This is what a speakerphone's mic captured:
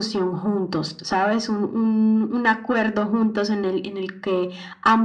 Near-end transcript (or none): none